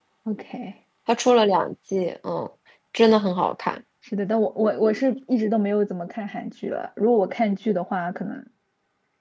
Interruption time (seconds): none

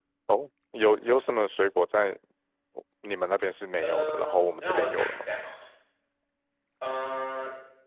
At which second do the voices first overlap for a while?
3.8 s

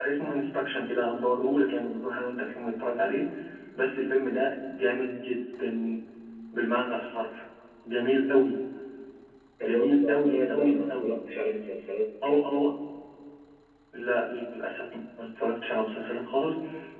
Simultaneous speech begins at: 9.6 s

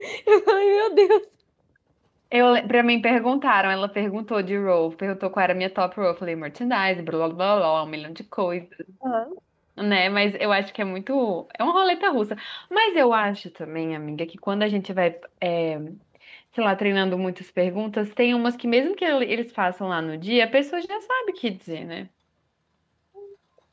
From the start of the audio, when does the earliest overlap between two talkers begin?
none

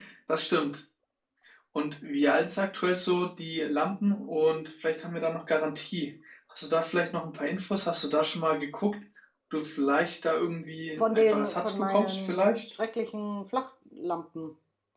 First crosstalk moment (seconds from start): 11.0 s

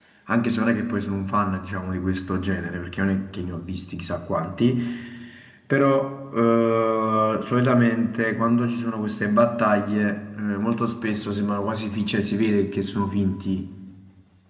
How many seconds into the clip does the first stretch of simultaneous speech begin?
none

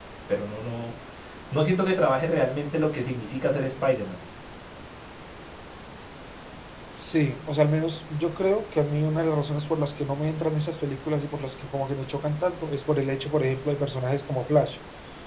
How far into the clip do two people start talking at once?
none

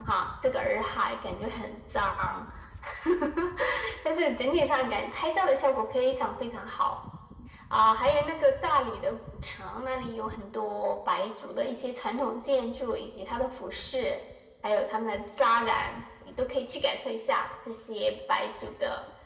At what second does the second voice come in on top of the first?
none

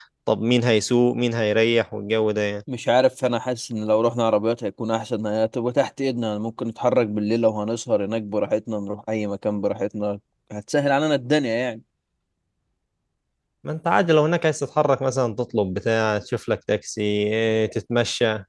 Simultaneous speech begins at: none

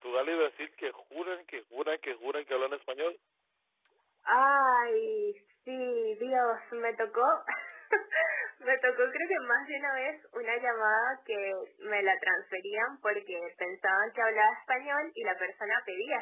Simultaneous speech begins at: none

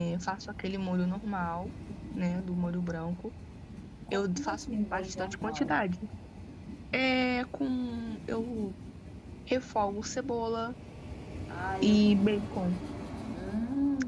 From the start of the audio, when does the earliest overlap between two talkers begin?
4.1 s

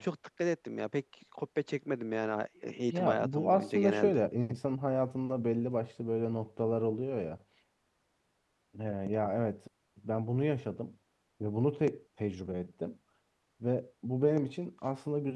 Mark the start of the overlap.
2.9 s

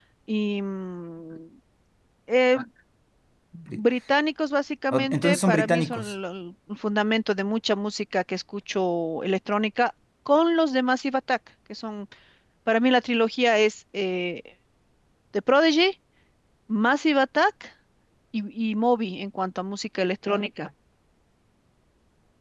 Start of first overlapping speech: 4.9 s

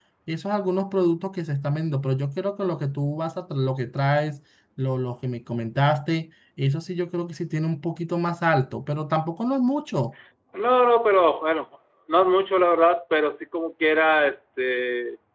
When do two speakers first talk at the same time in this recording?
none

